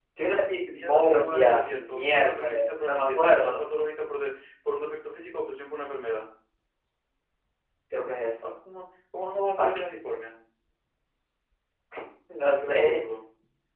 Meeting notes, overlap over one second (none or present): present